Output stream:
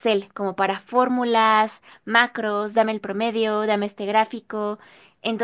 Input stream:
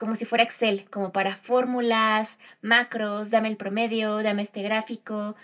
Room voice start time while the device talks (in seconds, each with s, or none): none